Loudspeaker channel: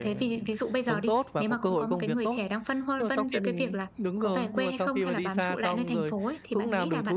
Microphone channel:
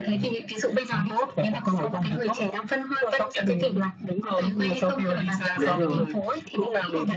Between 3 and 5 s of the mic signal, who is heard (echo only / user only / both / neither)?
echo only